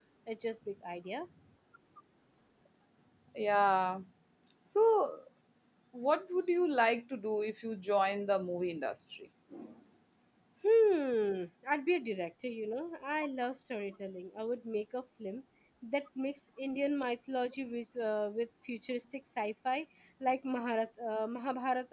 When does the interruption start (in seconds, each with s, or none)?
none